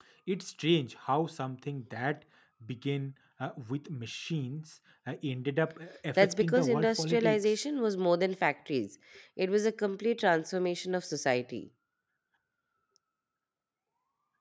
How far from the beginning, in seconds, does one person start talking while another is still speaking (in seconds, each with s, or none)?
6.2 s